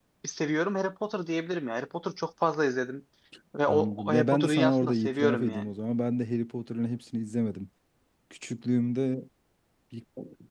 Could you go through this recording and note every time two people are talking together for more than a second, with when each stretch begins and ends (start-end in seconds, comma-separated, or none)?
3.7-5.7